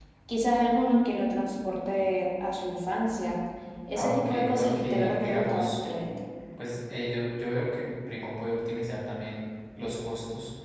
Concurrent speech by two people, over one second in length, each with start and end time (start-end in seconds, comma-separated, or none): 3.9-5.8